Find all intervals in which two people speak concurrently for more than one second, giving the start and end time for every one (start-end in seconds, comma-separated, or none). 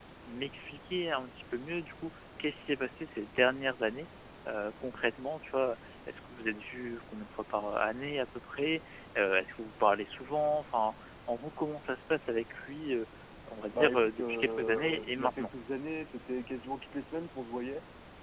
13.7-15.5